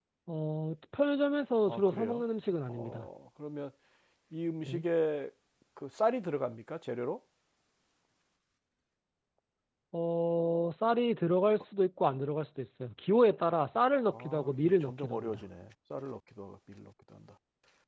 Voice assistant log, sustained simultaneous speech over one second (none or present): present